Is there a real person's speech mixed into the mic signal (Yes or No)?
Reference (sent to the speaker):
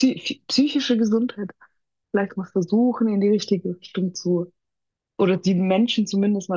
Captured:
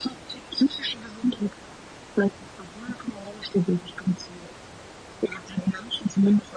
No